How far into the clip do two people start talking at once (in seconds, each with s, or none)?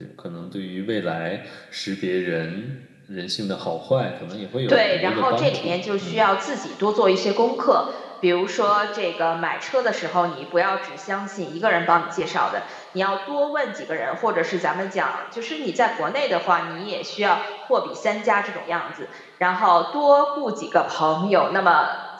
4.7 s